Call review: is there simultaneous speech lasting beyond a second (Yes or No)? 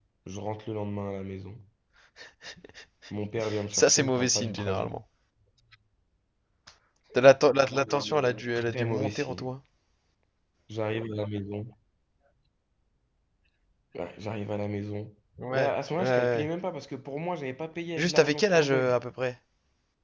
Yes